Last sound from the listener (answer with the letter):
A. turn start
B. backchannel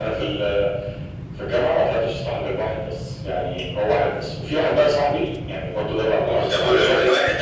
A